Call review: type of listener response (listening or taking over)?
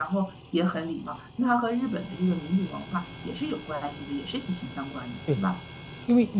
taking over